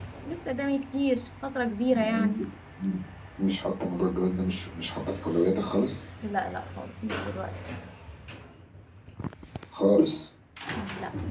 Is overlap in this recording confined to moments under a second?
Yes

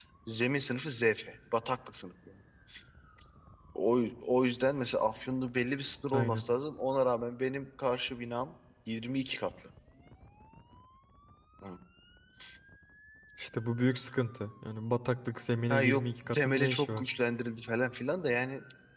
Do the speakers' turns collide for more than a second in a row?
Yes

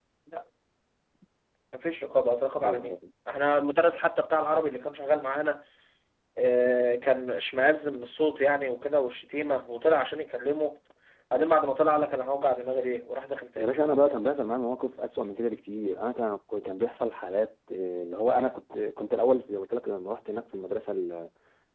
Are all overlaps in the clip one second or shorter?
Yes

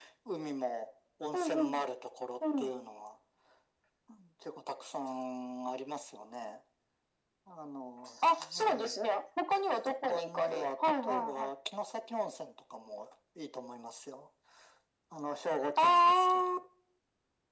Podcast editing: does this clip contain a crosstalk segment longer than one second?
Yes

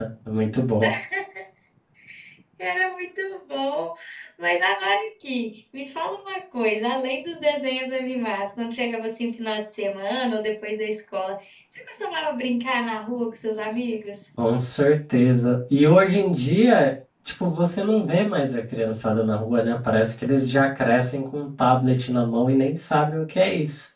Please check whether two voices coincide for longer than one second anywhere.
No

